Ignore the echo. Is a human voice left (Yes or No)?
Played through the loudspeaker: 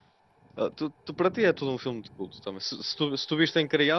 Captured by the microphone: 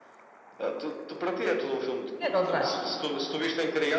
Yes